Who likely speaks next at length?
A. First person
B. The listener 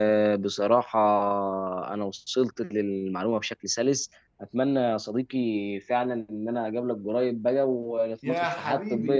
B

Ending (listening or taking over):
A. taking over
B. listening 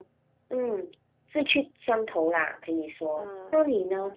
A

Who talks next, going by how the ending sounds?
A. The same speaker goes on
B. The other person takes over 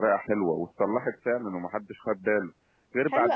B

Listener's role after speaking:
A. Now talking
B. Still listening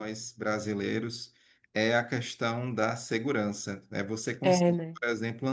B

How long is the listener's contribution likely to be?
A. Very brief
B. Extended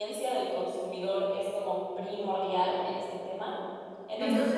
A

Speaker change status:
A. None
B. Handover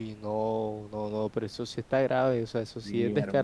B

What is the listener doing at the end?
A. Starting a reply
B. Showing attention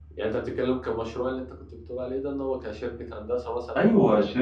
A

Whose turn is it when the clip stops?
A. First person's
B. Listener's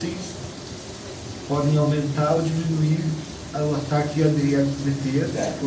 B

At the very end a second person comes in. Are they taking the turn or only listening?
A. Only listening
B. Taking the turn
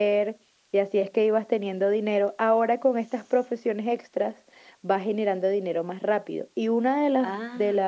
A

